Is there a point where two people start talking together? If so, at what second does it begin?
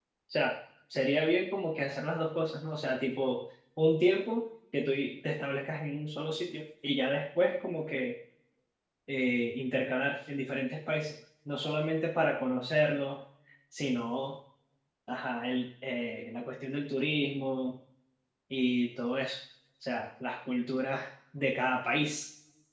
none

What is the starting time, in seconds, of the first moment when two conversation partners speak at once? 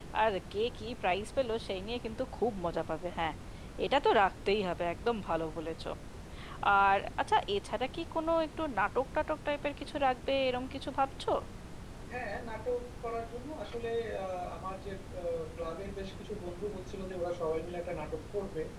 none

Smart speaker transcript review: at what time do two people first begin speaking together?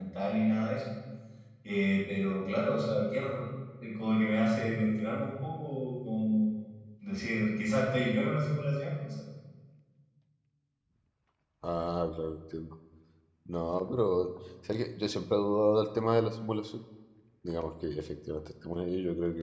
none

